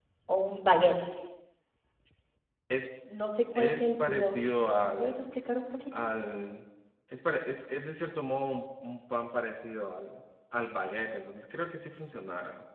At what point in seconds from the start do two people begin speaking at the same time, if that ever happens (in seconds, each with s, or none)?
3.5 s